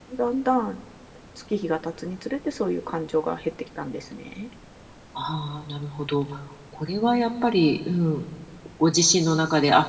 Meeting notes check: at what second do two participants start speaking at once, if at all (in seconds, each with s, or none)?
none